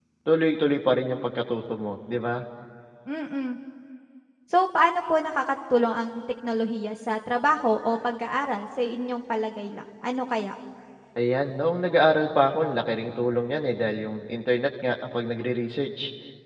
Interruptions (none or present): none